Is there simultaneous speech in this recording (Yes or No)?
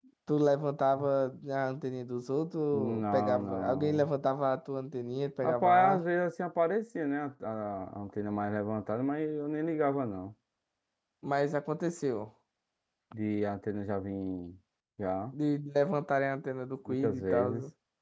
Yes